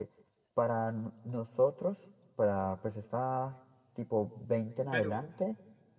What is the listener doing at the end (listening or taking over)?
listening